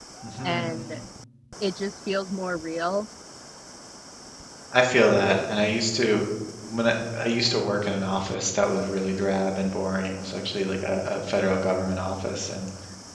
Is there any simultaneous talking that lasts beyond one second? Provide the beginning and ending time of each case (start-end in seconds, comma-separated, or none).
none